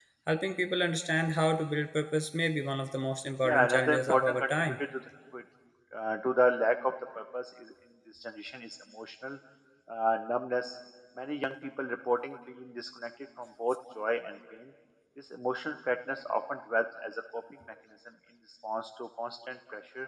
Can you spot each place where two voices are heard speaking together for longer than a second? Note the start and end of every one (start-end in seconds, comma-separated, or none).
3.4-4.8